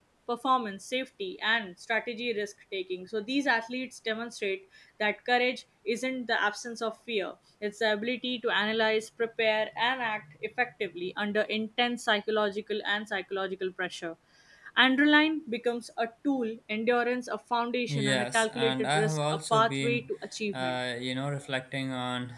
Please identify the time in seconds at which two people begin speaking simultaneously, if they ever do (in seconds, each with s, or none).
17.9 s